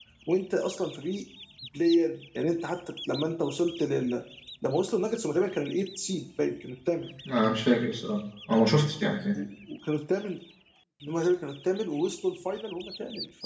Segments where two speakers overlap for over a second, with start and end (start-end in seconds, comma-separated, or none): none